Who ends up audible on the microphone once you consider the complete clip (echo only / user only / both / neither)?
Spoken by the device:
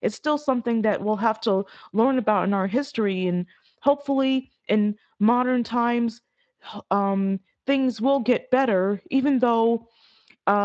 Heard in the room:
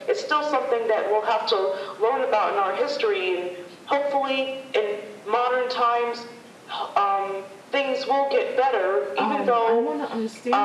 both